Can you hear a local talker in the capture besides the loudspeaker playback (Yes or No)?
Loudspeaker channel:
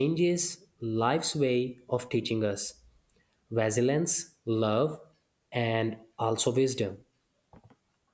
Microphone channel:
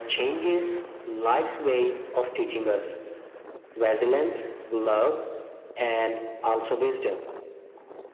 No